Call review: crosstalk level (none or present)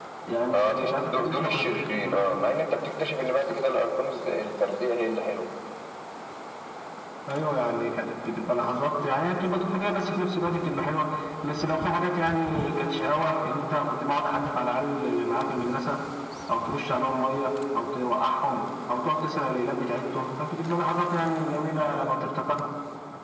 present